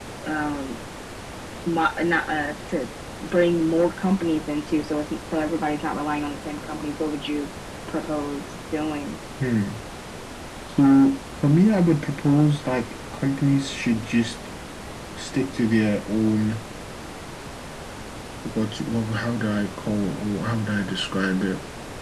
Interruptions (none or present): none